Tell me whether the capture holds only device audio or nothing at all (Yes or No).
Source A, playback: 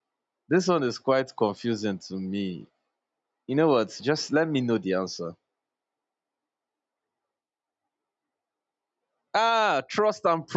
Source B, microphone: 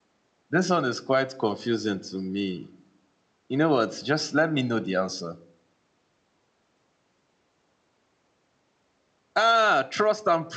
Yes